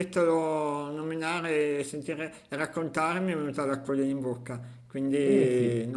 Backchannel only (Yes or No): No